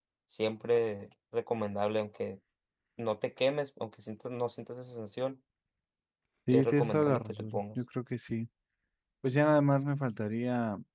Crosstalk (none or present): present